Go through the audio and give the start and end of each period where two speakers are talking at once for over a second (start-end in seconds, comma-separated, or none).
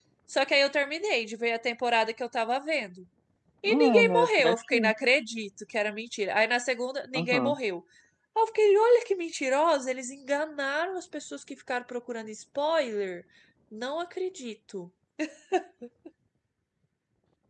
3.6-4.9